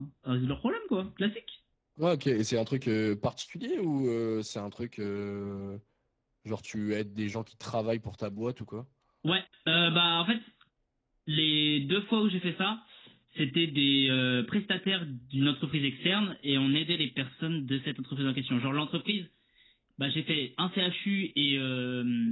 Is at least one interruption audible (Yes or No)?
No